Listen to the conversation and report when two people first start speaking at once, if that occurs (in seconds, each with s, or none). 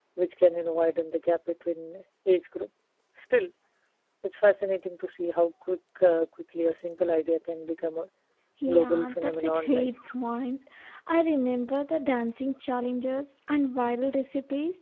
8.7 s